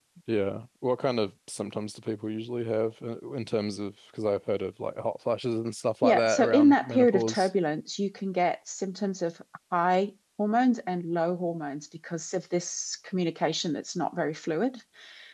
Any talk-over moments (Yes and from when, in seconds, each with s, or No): Yes, from 6.0 s